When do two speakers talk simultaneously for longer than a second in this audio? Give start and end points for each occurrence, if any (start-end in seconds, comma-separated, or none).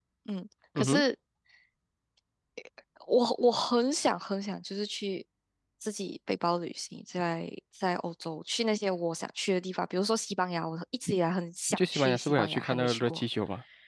11.8-13.2